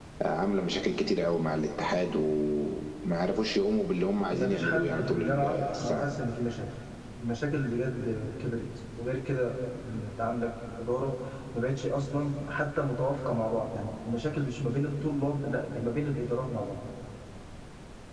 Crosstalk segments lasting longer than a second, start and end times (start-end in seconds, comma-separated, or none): 4.3-6.0